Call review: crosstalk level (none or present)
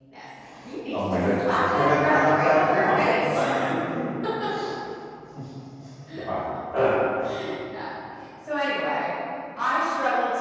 present